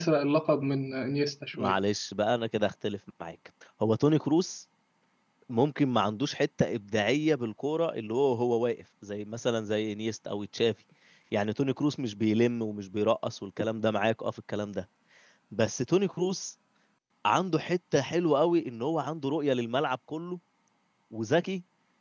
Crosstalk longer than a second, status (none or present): none